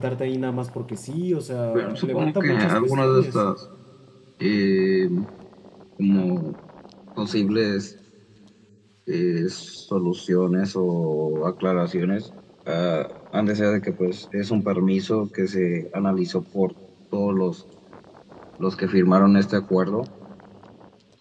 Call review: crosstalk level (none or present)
present